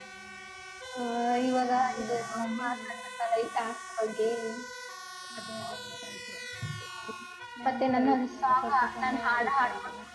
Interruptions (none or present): present